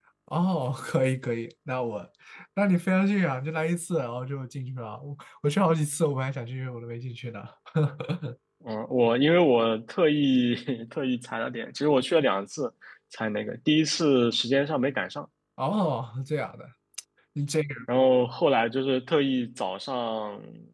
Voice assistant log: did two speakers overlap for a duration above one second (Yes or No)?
No